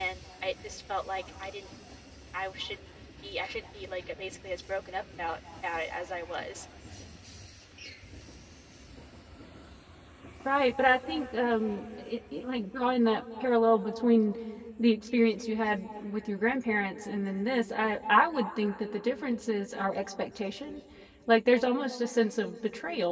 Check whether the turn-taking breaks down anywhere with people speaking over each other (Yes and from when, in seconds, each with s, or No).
No